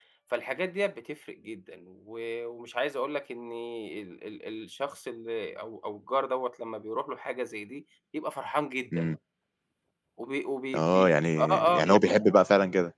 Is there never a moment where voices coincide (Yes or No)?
No